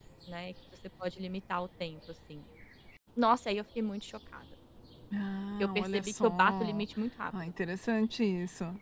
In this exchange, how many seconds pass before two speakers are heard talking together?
5.6 s

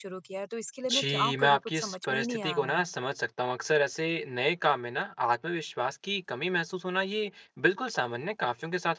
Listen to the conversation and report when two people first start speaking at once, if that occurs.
0.9 s

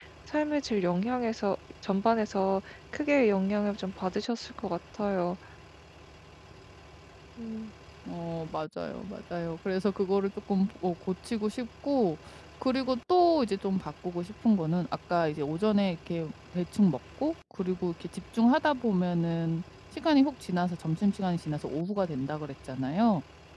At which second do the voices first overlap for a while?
none

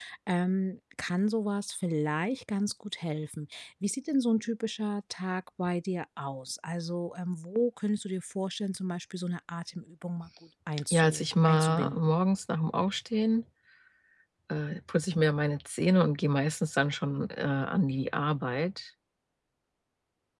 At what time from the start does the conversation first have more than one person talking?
10.9 s

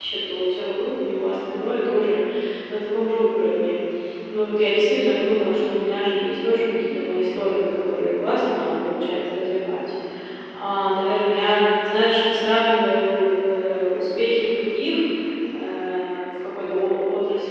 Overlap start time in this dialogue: none

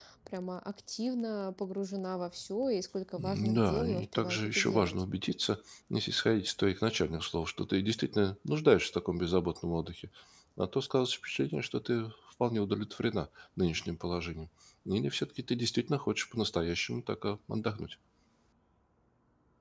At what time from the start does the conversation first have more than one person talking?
3.2 s

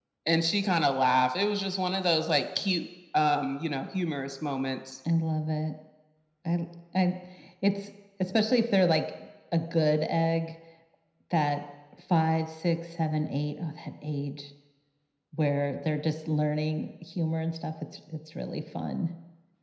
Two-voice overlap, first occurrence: none

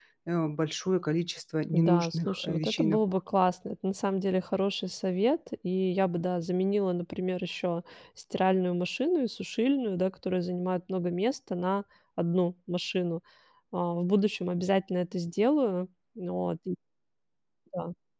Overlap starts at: 1.7 s

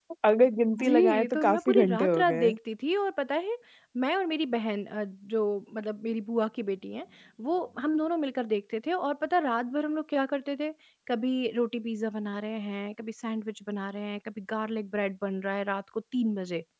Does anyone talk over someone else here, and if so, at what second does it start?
0.8 s

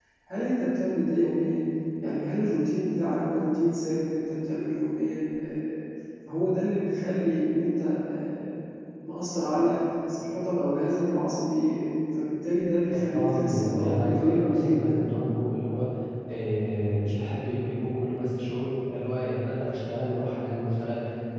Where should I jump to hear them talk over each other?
12.9 s

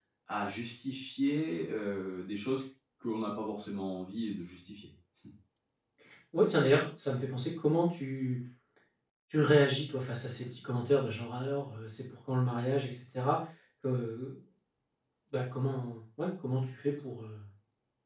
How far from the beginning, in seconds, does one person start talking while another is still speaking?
none

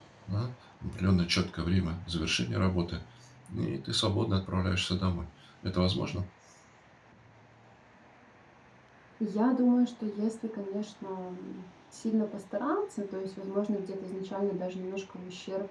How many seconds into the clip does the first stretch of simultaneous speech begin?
none

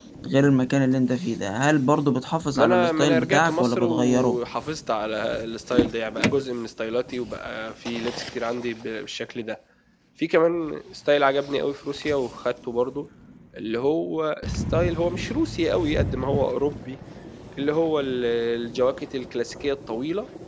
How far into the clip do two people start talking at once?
2.5 s

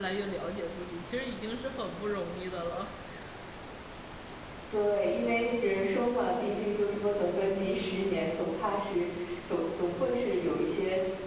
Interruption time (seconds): none

